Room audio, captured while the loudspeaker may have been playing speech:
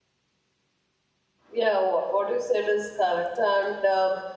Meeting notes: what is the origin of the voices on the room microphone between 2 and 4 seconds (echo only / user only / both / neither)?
user only